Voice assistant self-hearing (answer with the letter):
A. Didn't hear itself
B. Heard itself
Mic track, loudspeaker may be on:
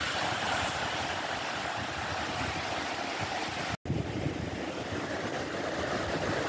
A